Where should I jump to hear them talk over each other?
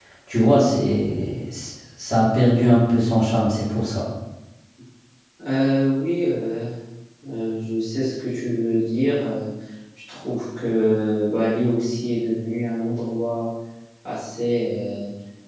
none

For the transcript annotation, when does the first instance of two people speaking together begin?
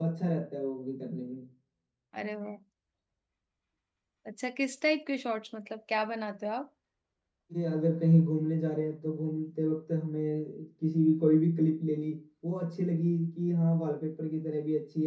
none

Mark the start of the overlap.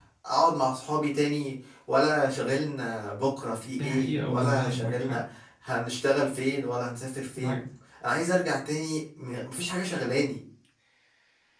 3.8 s

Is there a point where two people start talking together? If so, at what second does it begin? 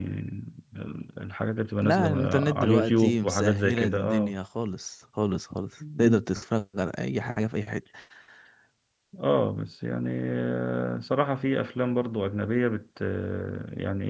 1.8 s

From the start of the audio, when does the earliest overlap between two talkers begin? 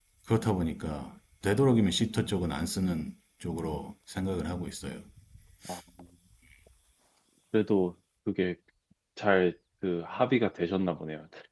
none

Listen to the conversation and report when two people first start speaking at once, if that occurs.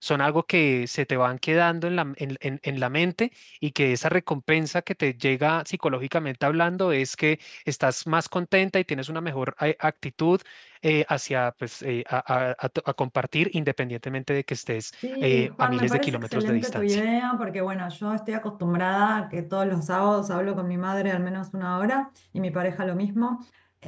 15.0 s

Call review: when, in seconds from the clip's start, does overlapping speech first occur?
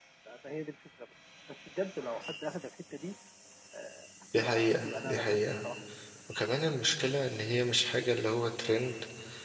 4.3 s

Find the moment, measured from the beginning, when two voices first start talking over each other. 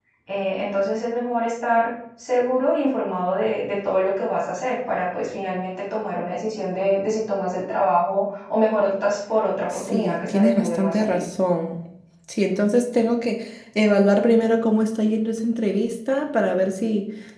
9.7 s

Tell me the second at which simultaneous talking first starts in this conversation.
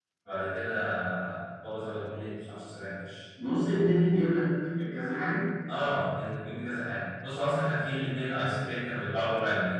none

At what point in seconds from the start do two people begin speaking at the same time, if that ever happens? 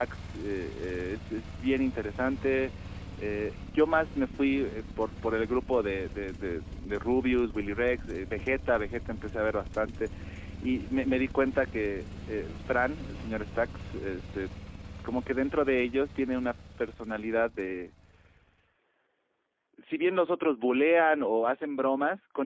none

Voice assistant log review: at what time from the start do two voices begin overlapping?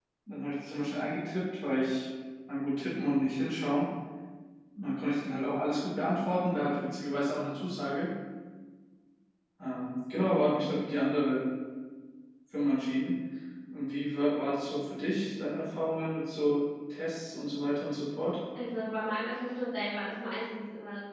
none

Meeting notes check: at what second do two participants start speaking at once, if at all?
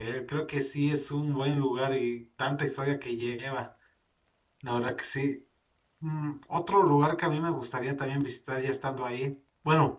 none

